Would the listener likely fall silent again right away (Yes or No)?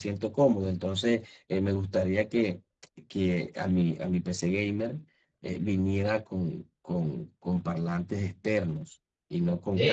No